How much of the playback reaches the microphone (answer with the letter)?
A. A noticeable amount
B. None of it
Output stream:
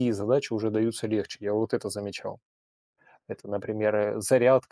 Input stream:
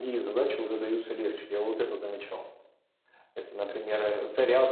A